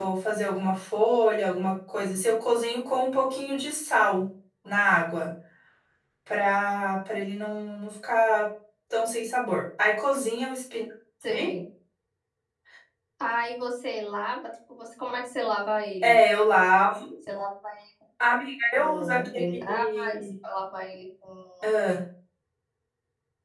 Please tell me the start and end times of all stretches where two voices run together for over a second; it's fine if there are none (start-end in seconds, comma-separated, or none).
18.7-20.2